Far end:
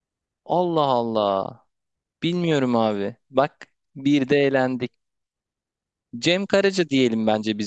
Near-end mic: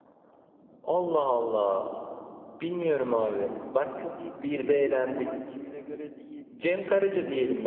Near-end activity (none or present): present